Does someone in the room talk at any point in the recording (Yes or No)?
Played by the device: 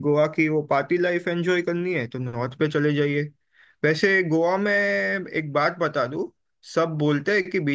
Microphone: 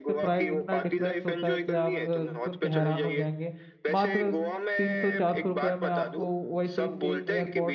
Yes